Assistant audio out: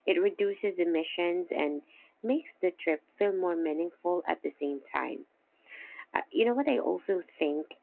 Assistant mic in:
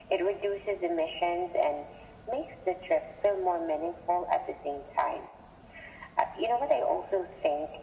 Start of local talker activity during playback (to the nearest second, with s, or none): none